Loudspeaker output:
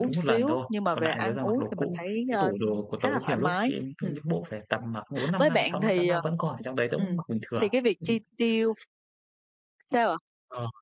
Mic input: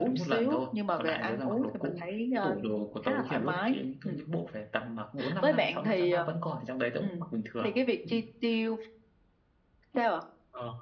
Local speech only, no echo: none

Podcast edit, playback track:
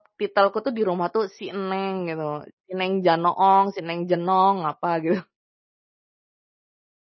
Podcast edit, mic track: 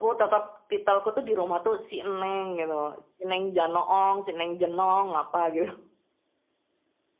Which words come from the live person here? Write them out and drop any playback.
none

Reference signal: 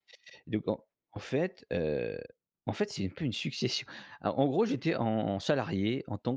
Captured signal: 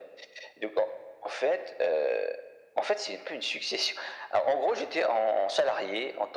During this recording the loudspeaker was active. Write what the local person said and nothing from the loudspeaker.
none

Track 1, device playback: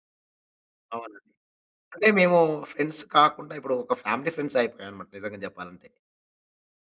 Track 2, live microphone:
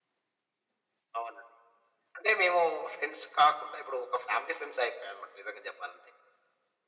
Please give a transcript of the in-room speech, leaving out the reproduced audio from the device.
none

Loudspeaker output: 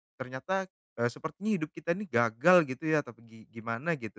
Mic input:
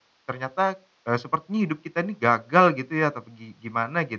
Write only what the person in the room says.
none

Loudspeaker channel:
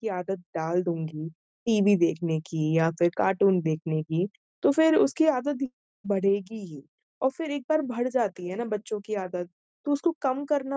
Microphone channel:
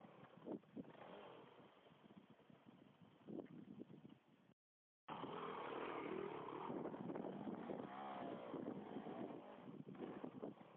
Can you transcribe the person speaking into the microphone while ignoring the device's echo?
none

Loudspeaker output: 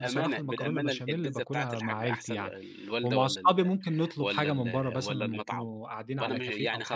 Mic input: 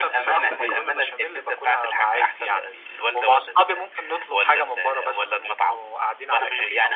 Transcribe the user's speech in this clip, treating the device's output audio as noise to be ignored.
صحيح

